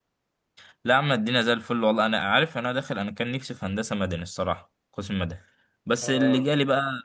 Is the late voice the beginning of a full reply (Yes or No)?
No